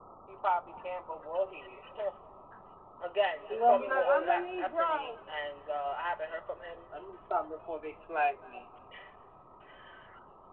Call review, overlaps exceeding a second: present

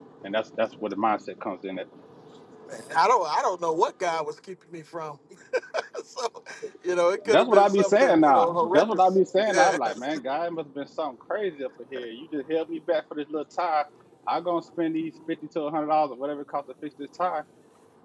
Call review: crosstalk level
present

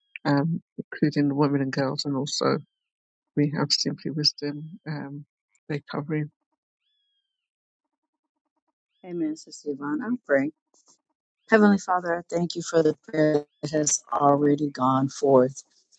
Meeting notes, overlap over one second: none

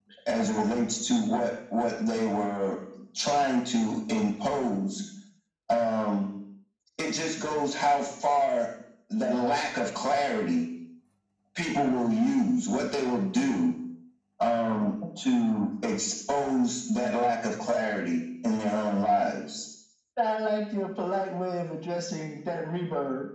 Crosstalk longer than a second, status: none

